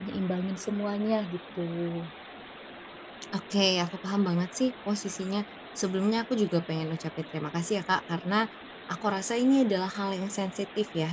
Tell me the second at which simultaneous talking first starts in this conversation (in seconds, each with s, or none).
none